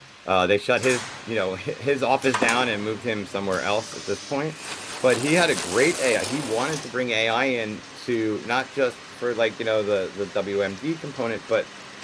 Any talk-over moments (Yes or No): No